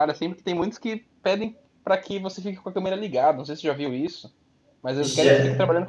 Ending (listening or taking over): listening